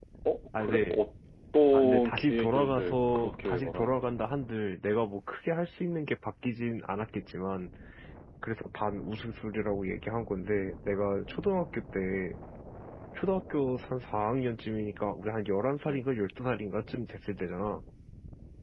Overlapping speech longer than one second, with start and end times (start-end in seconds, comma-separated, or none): 1.7-4.0